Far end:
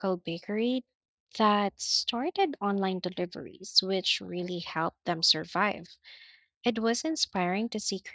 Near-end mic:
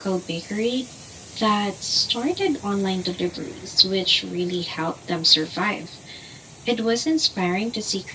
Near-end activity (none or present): none